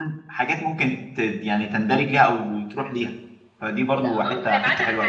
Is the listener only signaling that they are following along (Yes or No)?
No